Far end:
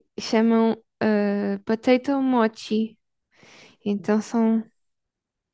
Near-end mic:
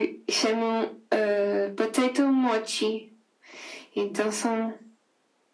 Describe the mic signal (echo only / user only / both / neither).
echo only